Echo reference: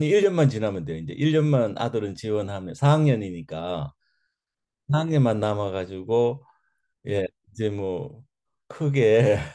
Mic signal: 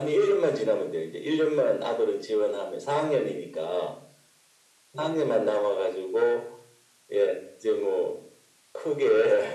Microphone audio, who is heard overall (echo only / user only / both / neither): echo only